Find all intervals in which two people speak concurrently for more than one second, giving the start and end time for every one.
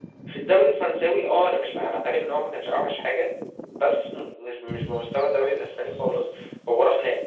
none

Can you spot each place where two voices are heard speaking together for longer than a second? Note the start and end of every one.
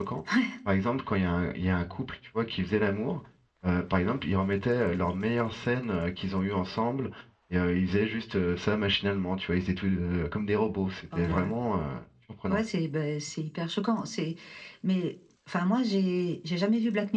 none

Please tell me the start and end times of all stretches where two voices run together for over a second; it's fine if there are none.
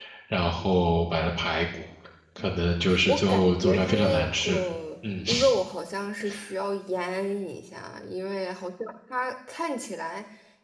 3.0-4.6

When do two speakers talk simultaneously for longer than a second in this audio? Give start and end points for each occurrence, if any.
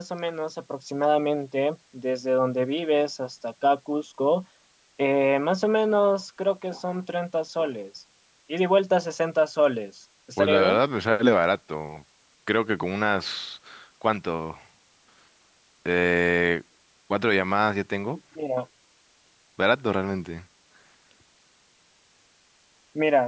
none

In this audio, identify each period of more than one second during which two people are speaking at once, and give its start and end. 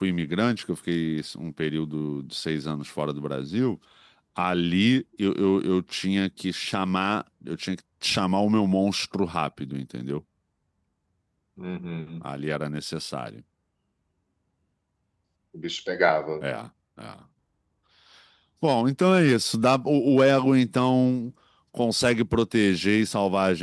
none

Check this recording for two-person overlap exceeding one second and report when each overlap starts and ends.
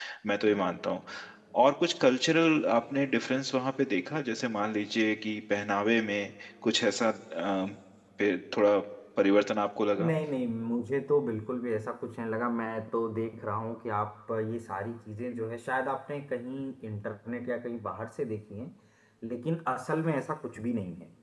none

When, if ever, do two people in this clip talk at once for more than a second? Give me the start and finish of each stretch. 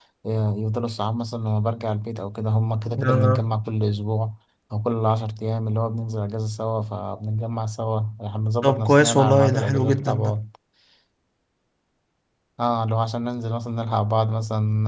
8.6-10.4

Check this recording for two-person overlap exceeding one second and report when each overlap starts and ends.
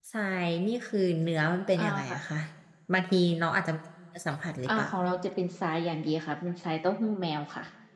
none

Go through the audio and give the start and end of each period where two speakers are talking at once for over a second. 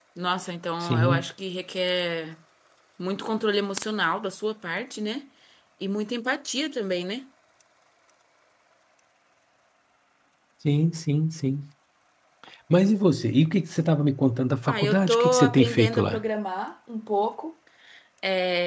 14.7-16.2

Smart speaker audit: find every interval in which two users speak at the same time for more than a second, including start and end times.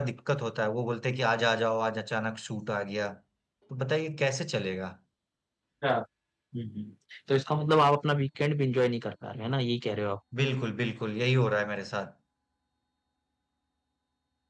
none

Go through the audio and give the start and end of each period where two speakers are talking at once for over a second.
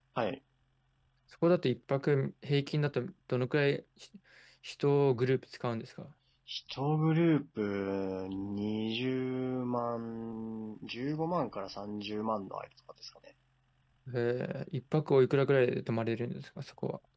none

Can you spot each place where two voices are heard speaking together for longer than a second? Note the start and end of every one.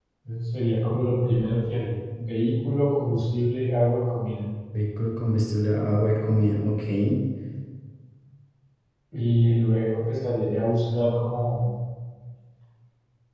none

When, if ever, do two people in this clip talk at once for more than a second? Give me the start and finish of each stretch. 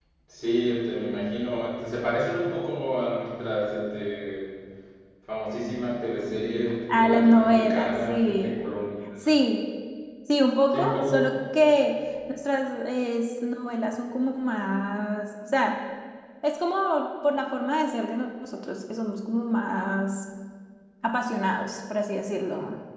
6.9-8.6

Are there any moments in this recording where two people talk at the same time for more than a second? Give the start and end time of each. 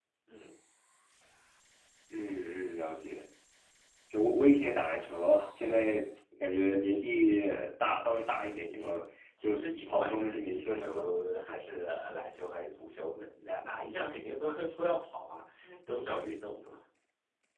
9.4-11.1

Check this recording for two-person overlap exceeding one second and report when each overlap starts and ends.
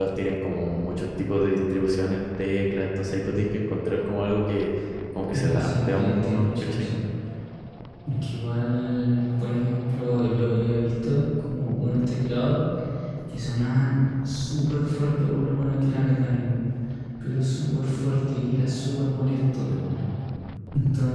5.3-6.9

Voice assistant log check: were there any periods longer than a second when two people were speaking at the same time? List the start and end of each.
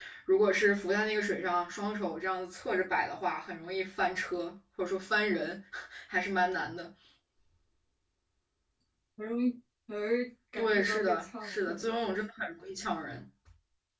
10.6-12.1

